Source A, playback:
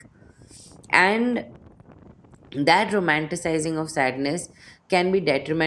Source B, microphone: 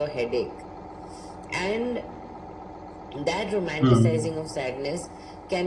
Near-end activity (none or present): present